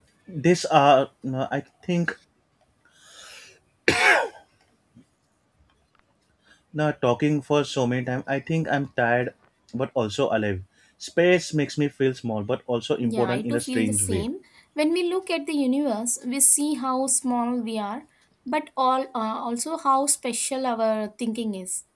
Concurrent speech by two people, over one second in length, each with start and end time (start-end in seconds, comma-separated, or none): 13.0-14.3